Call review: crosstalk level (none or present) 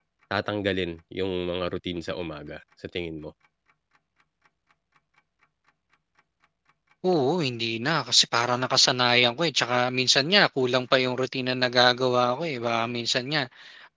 none